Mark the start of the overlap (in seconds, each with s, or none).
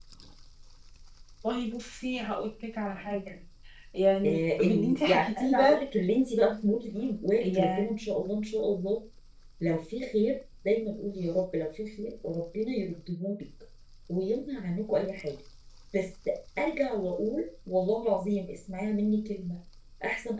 4.2 s